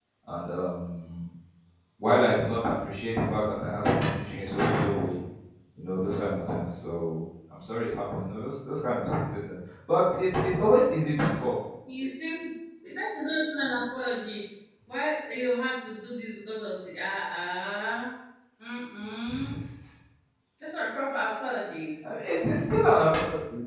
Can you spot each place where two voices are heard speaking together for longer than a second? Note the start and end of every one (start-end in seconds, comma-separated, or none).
none